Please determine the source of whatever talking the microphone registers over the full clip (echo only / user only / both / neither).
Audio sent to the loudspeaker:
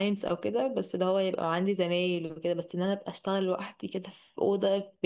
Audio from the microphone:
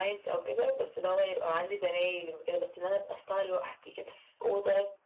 echo only